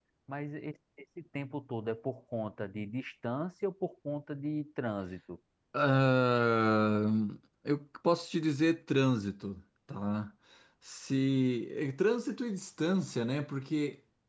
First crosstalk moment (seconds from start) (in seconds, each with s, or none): none